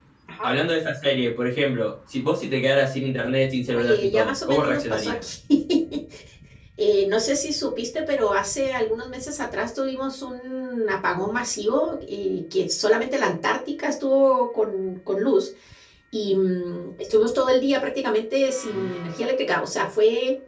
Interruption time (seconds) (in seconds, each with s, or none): 3.7 s